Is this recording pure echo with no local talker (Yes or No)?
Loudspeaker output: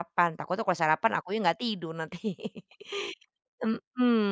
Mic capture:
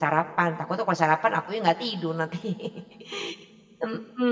Yes